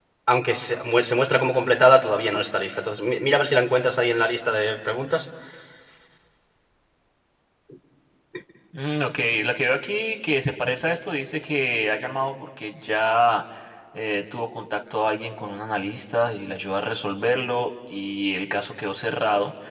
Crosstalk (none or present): none